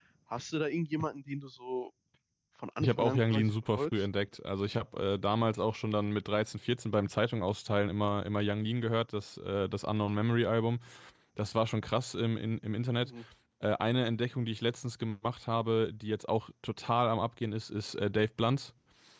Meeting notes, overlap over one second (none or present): present